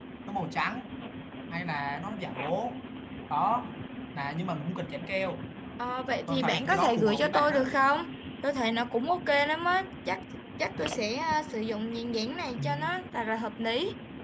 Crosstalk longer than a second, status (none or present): present